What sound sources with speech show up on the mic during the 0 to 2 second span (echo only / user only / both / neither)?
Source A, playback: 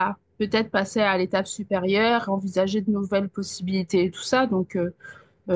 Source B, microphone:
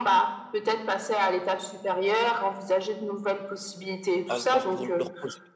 echo only